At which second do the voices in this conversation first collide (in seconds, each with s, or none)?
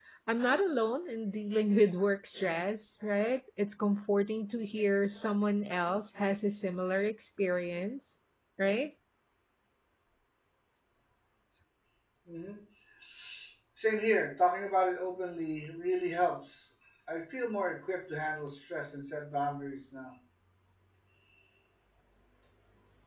none